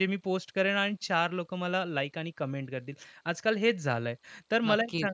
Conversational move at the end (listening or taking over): listening